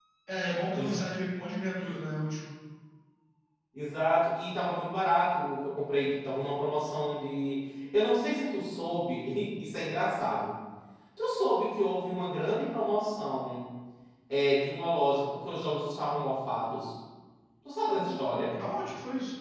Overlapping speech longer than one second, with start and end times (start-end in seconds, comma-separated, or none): none